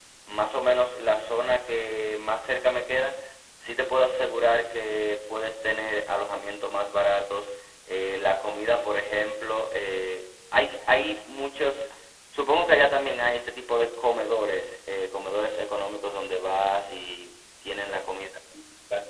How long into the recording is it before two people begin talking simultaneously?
none

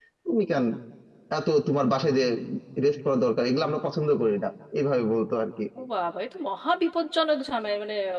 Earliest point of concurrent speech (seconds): none

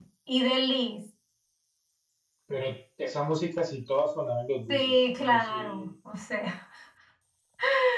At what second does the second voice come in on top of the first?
4.7 s

